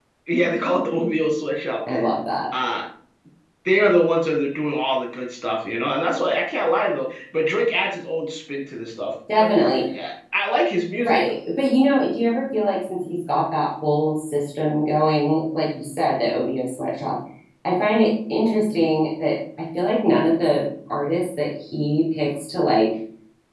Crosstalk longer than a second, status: none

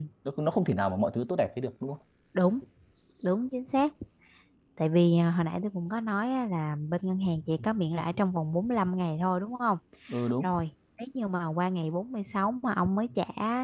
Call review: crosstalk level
none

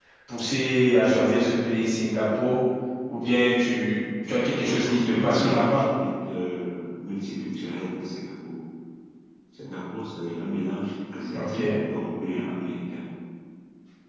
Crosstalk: present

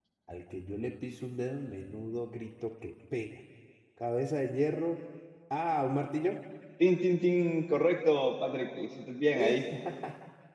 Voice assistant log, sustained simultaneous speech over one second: none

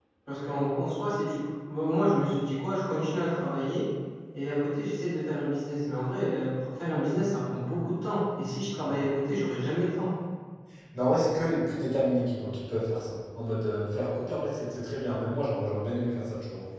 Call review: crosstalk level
none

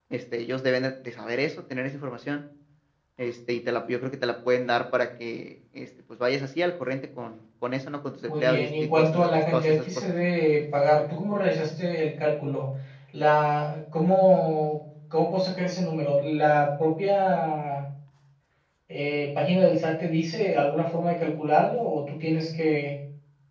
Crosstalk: present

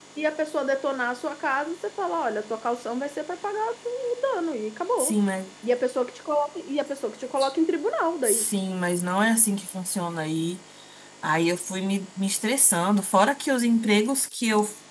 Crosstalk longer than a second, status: none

